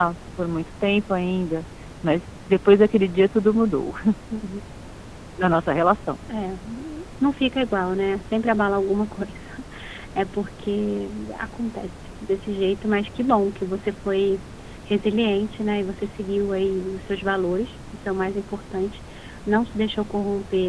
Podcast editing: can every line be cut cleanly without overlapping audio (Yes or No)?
Yes